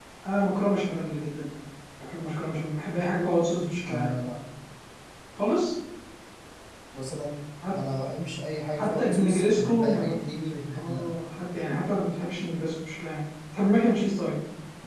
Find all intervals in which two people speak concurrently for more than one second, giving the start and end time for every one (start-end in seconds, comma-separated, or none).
8.8-10.2